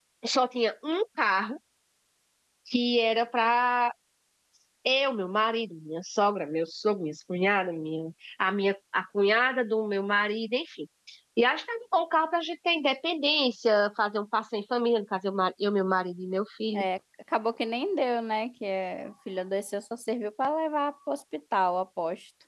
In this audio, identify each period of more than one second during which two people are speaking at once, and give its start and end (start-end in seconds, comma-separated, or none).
none